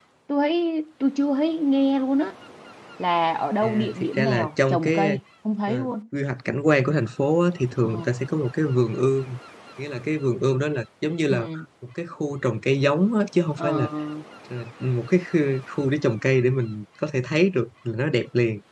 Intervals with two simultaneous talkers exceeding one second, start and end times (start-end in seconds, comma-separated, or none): 3.6-5.2